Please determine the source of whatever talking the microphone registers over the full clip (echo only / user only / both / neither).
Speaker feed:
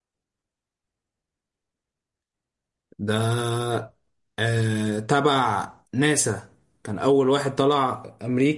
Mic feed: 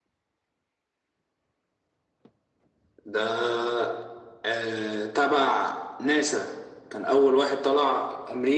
echo only